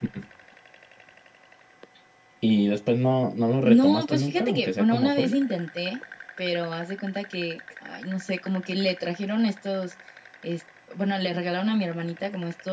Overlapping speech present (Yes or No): Yes